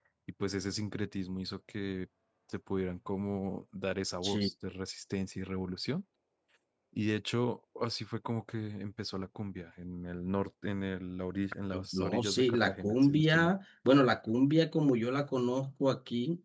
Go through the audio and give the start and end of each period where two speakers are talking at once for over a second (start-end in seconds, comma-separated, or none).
11.9-13.5